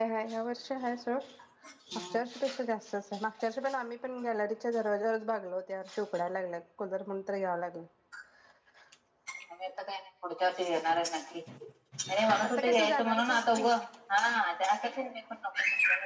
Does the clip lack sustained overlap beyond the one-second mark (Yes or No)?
No